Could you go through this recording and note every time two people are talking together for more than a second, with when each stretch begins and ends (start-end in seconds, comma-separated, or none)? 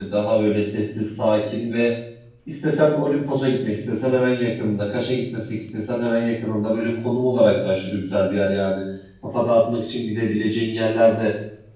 none